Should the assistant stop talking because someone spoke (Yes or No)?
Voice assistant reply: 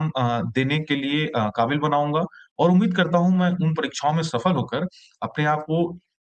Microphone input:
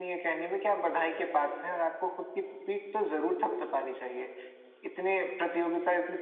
Yes